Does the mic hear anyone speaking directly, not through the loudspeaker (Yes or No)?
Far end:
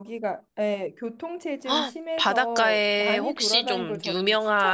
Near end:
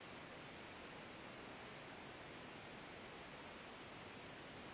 No